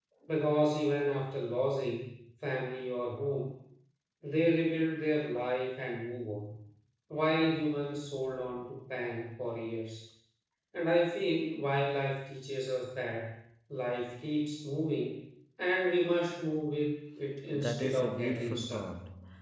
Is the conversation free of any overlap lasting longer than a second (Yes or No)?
No